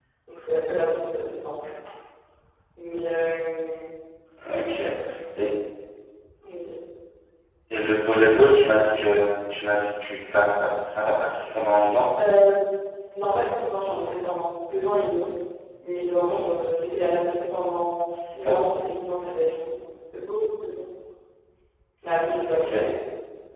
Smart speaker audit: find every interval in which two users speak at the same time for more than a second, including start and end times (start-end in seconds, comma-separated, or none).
none